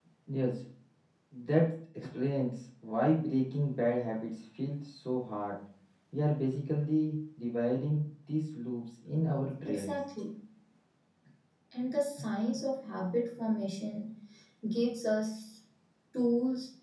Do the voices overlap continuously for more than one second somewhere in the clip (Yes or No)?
No